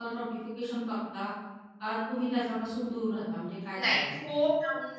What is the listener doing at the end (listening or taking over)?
taking over